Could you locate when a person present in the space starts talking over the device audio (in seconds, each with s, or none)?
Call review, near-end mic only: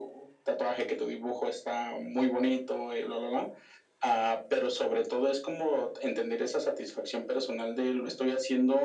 none